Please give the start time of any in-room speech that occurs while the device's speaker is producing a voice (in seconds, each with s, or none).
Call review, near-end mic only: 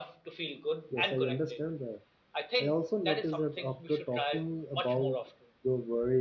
0.9 s